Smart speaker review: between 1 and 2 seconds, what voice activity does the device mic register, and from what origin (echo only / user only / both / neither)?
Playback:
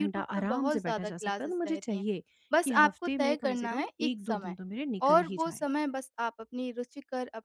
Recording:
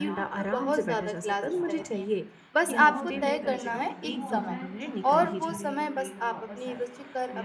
both